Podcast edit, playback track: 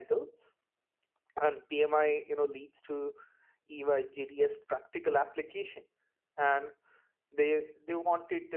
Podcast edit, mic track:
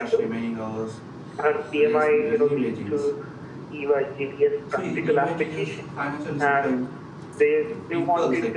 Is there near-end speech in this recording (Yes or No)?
Yes